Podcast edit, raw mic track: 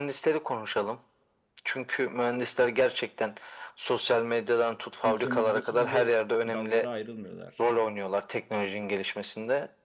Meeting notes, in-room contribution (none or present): present